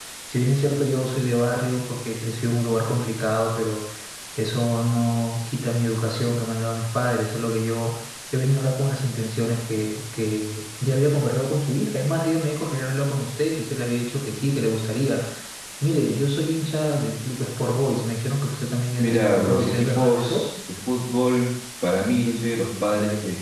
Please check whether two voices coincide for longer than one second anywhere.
Yes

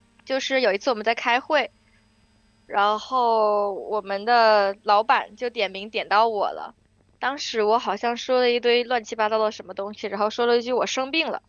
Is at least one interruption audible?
No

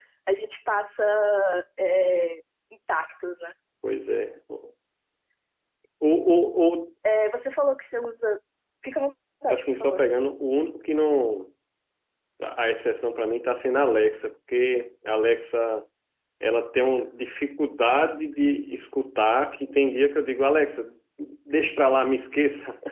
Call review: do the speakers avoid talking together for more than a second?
Yes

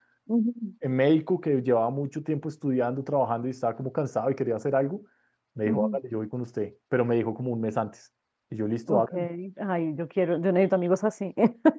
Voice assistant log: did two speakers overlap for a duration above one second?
No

